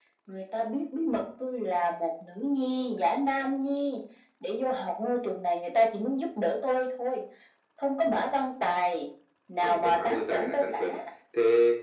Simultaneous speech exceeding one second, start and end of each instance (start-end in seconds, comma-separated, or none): 9.6-11.0